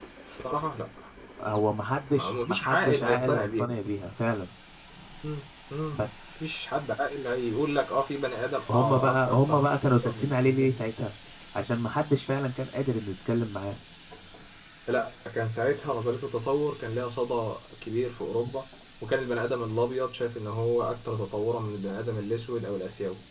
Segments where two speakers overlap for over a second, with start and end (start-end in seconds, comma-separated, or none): 2.1-3.8, 8.7-10.8